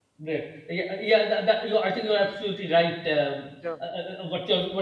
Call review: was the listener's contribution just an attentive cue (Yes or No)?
Yes